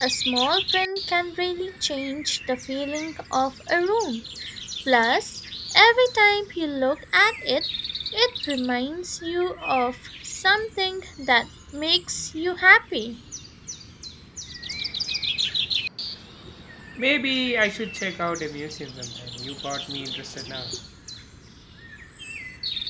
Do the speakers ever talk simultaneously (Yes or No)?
No